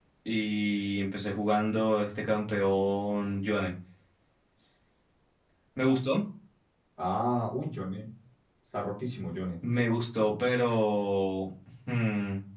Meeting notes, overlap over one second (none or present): none